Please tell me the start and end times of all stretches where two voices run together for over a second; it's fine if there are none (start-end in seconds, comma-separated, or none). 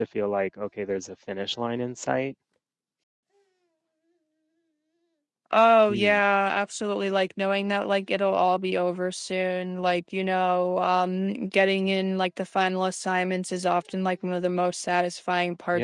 none